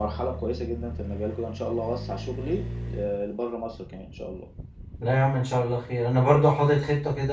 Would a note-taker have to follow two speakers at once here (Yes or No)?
No